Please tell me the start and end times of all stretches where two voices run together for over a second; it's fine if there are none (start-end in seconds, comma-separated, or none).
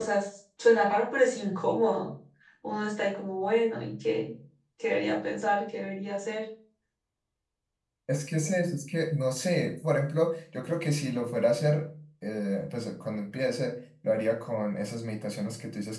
none